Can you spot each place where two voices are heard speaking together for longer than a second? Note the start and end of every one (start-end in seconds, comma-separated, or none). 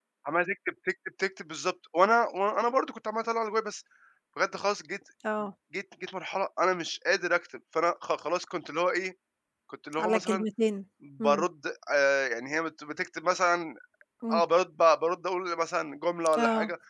none